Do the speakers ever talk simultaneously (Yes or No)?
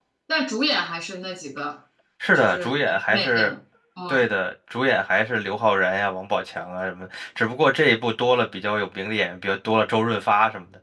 Yes